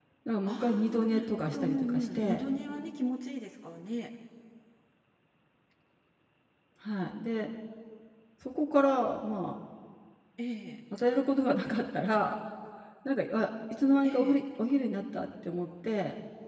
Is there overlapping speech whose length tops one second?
Yes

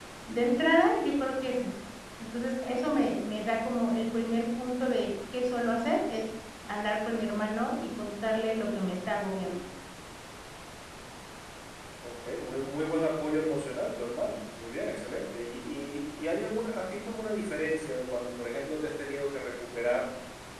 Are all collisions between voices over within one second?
Yes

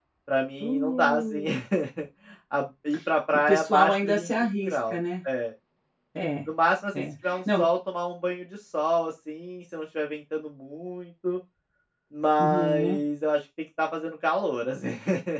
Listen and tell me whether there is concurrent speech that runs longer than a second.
Yes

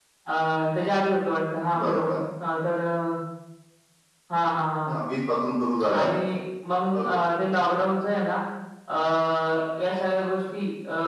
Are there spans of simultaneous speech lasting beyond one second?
No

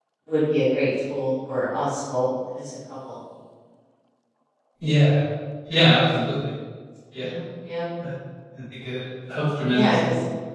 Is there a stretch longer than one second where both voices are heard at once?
No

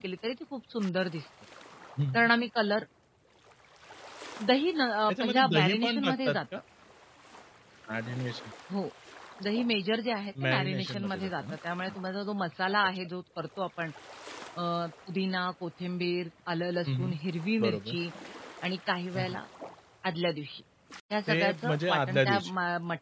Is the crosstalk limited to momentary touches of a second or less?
No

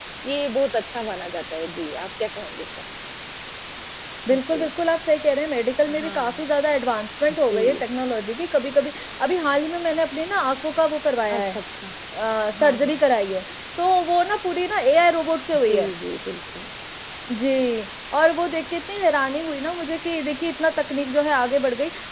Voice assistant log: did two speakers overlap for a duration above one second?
No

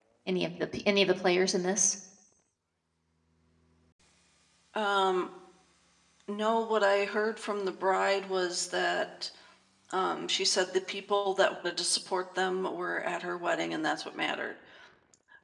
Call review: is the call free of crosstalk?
Yes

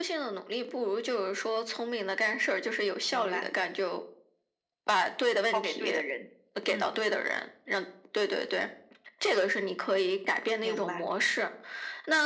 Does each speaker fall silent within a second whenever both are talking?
Yes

